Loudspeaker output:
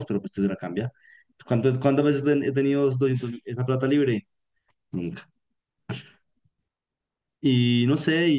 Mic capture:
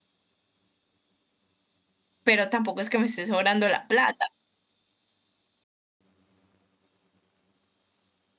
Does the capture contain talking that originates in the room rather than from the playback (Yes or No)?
Yes